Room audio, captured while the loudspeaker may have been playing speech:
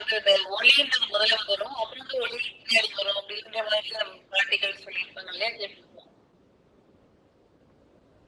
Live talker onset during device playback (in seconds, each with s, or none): none